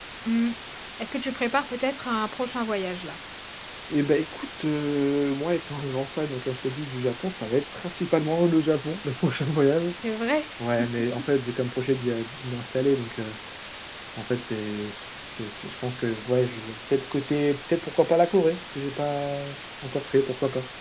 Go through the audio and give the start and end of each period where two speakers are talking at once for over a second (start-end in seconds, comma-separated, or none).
none